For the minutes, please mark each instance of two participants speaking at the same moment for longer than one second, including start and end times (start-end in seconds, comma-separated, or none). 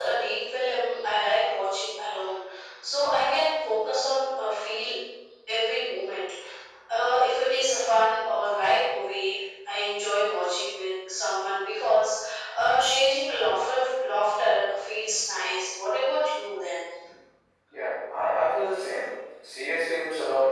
none